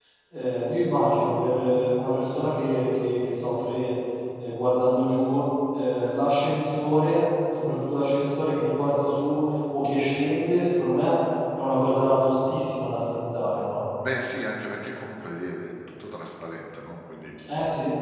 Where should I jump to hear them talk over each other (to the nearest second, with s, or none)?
none